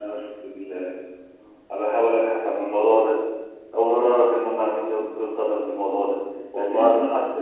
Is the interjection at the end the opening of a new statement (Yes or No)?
No